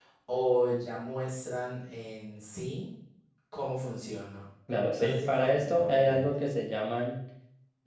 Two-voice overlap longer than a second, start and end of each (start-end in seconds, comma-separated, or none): 5.0-6.3